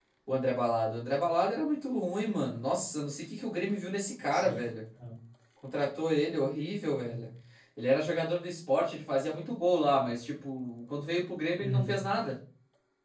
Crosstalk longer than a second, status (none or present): none